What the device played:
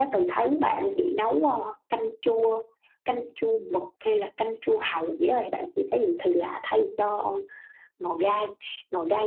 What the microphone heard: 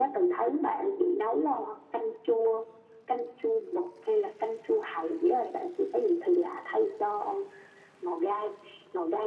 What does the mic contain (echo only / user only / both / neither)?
echo only